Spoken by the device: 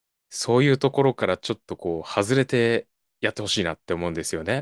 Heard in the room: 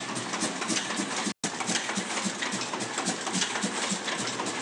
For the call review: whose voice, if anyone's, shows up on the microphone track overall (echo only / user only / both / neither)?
neither